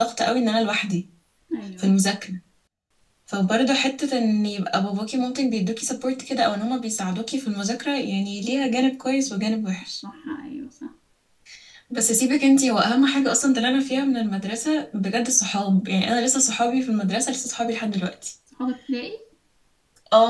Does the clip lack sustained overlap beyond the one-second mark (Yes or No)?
Yes